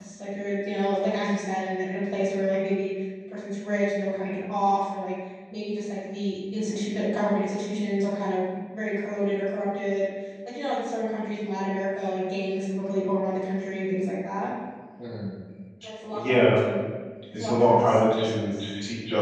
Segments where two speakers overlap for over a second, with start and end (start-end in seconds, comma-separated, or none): 17.3-18.7